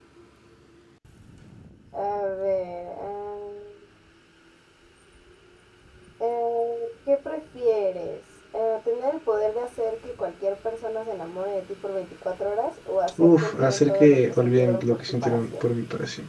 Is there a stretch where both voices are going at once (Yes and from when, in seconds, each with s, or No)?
Yes, from 13.2 s